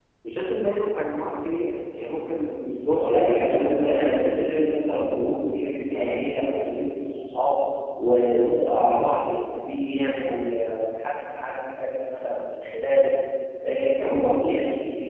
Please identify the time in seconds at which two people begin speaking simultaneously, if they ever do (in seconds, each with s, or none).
3.0 s